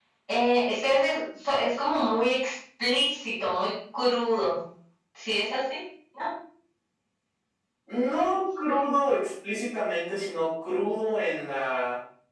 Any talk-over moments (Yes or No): No